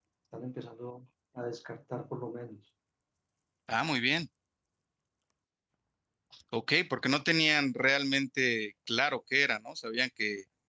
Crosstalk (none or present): none